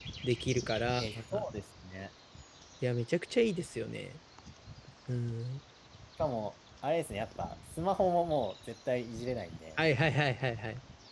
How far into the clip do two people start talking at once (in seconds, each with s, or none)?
none